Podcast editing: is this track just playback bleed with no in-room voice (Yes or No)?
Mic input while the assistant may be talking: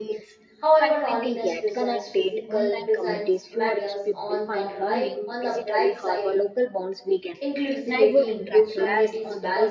No